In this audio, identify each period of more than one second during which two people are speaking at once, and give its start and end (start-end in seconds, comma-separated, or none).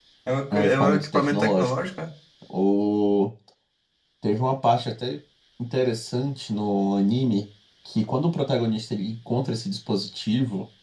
0.5-1.7